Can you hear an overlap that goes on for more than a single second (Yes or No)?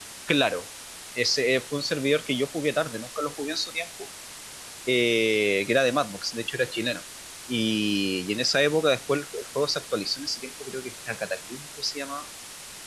No